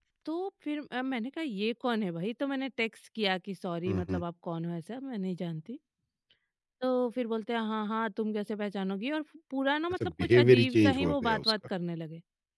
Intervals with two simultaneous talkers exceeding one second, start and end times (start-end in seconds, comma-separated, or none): 9.9-11.5